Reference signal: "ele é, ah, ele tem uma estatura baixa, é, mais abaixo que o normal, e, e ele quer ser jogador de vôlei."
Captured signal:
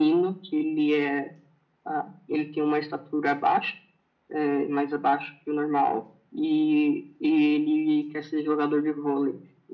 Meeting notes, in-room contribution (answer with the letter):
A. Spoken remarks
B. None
B